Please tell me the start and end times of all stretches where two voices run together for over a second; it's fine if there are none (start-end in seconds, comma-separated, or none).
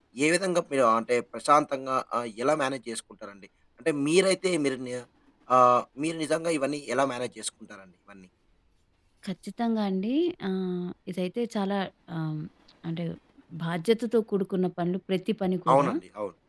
none